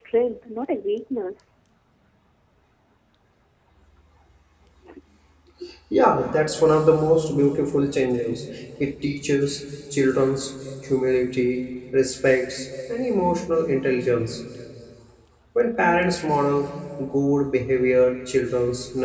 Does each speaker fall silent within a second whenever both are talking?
Yes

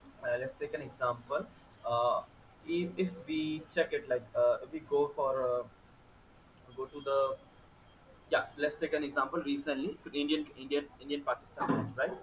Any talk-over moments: No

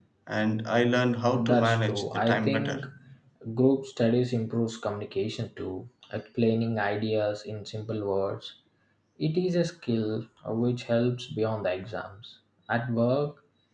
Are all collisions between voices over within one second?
No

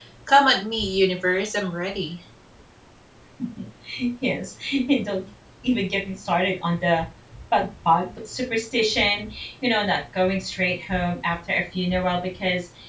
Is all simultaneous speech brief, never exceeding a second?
Yes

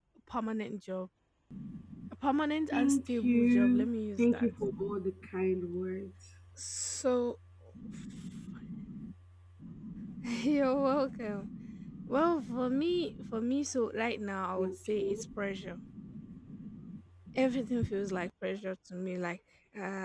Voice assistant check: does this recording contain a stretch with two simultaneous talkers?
Yes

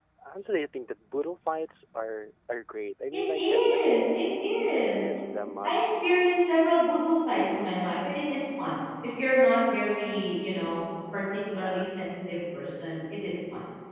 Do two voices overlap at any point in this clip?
Yes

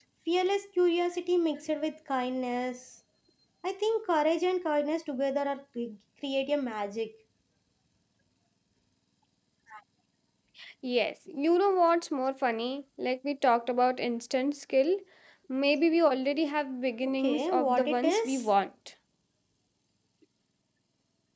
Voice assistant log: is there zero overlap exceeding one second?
No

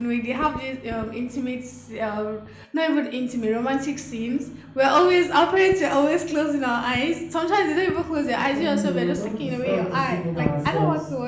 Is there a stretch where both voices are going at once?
Yes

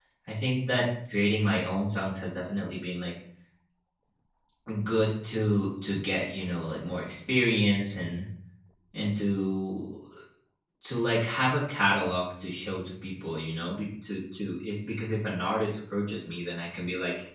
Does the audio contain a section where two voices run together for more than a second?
No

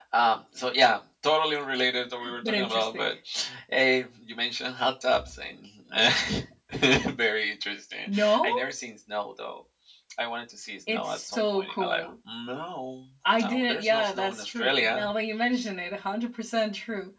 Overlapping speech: Yes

